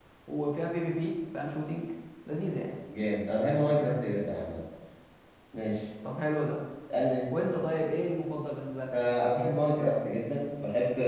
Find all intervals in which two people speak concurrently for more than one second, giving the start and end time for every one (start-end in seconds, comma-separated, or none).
none